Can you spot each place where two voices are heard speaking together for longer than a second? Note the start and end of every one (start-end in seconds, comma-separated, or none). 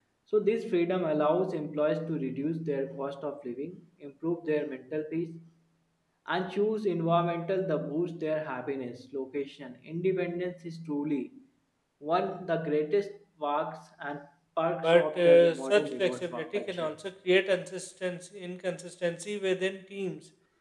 14.8-16.9